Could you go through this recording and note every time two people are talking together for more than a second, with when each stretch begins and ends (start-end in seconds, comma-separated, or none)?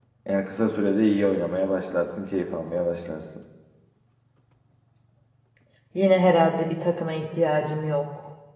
none